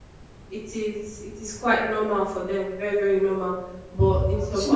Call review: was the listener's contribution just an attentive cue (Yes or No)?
No